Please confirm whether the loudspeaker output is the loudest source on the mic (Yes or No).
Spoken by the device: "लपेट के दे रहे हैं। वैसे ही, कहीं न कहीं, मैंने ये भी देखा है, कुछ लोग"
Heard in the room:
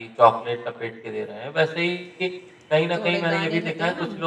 Yes